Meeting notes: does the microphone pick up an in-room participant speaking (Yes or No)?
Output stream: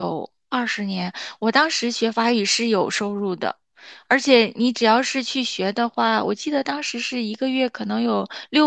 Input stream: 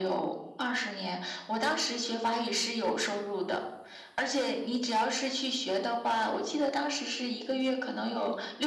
No